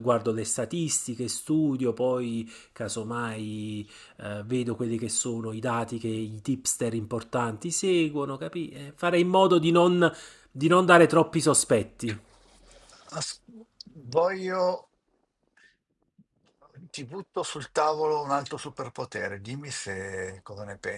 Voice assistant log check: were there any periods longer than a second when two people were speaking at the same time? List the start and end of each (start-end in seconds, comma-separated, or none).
none